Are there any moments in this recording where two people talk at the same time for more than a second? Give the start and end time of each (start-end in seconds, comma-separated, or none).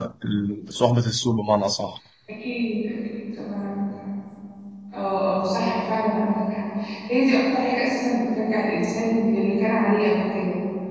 none